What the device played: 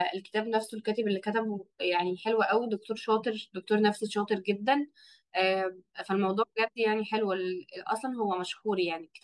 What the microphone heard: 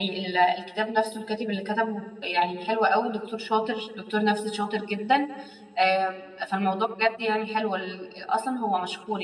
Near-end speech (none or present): none